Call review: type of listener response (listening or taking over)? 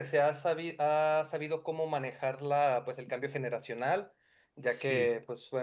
listening